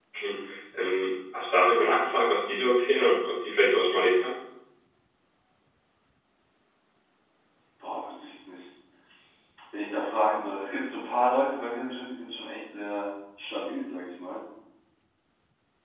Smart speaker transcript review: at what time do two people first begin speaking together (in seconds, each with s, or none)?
none